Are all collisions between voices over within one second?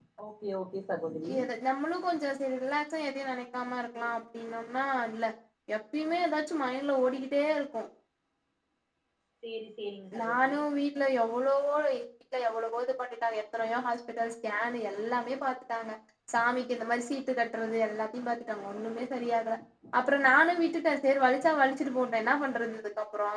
Yes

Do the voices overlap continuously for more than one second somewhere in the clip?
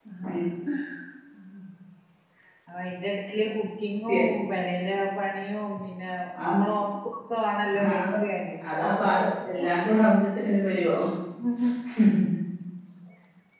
No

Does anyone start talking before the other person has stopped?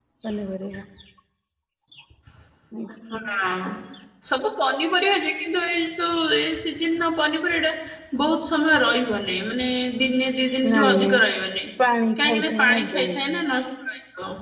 Yes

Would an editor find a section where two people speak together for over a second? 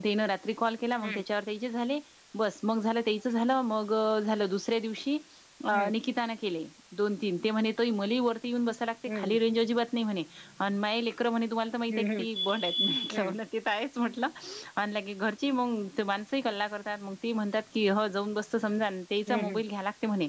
No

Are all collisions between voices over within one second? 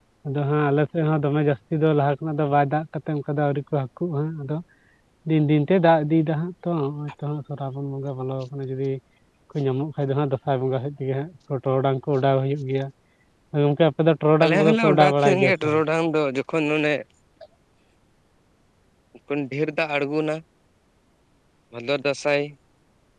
No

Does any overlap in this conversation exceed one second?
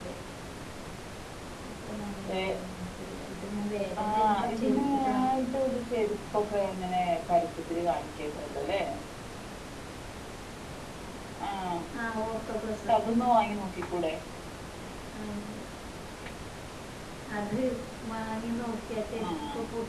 Yes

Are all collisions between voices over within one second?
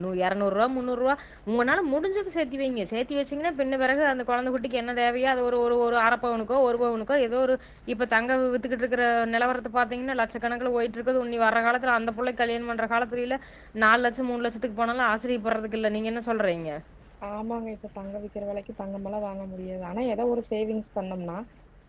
Yes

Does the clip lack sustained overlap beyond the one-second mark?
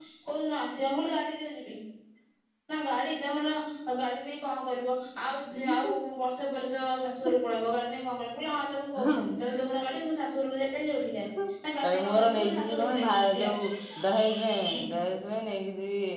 No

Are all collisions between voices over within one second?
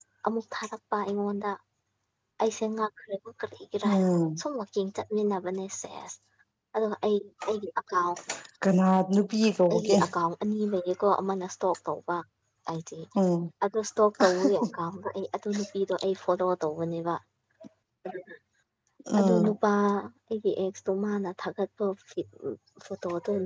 Yes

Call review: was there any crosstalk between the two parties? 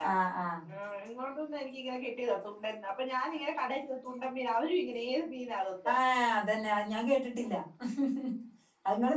No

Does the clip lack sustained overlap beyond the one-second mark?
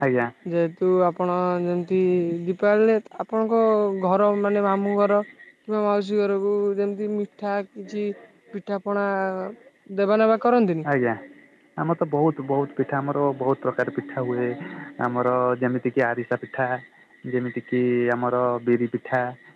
Yes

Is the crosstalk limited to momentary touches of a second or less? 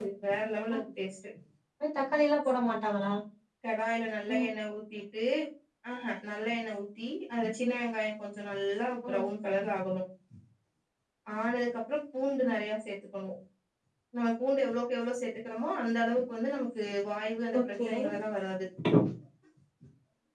Yes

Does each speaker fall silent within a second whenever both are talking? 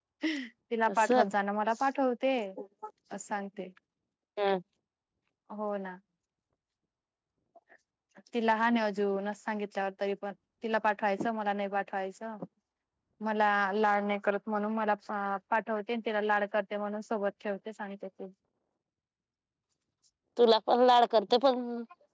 Yes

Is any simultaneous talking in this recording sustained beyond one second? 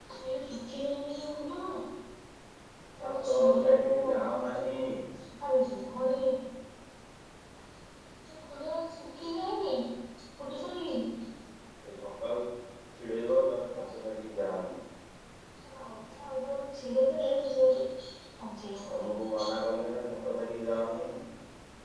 Yes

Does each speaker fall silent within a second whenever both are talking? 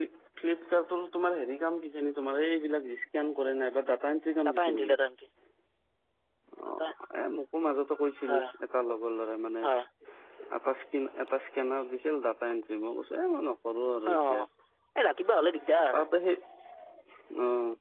Yes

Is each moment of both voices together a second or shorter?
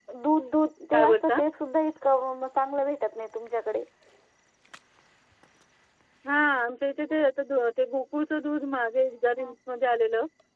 Yes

